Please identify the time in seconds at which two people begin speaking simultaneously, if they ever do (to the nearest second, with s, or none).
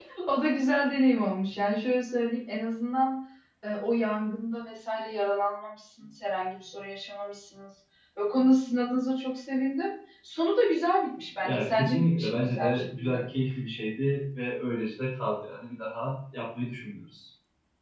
11 s